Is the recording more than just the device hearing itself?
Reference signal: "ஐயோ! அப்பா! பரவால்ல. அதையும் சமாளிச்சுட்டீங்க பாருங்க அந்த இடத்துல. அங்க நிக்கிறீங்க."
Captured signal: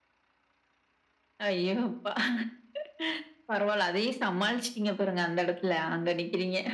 No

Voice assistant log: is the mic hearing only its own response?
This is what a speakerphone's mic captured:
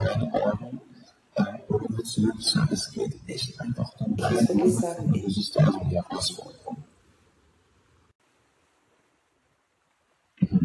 No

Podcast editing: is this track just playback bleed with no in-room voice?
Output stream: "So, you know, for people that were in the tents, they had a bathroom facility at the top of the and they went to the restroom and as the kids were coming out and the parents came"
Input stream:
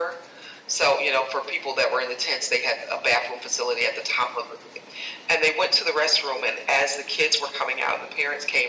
Yes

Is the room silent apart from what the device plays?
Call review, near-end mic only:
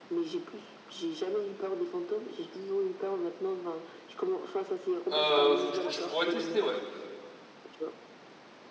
No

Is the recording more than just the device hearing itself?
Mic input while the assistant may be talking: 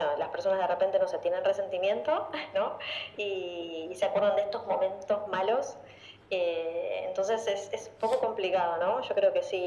No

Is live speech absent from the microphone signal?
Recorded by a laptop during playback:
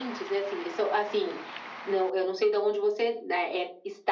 Yes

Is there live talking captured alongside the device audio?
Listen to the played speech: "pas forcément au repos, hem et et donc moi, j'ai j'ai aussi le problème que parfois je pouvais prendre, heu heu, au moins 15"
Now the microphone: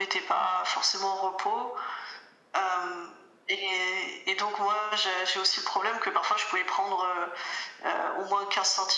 No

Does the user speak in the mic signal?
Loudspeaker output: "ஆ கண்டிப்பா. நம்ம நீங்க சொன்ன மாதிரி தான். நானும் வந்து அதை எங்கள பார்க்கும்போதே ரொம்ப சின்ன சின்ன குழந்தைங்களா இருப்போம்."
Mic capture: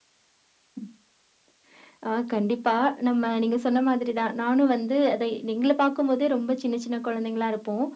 No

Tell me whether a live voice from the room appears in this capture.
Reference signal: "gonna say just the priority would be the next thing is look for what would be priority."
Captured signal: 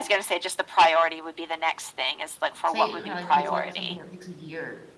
Yes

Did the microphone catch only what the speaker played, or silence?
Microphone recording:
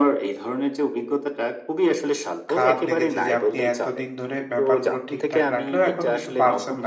No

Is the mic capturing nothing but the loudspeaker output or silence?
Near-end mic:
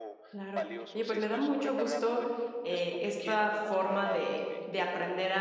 No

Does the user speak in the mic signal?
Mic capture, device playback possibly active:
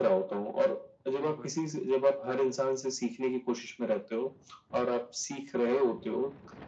Yes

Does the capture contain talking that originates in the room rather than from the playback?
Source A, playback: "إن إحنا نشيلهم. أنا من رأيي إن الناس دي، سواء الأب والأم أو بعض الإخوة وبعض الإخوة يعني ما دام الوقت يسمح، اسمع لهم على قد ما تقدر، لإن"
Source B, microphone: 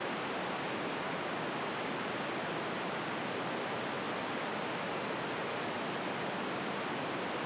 No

